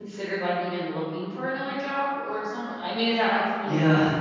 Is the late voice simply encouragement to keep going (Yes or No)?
No